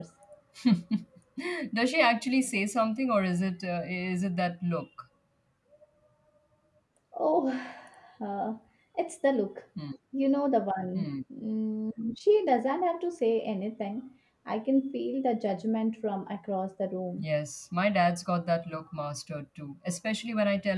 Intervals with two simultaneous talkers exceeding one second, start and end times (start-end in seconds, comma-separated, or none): none